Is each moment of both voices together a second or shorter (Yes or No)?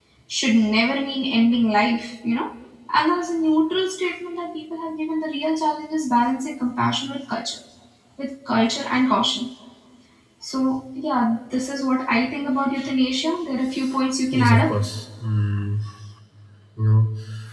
Yes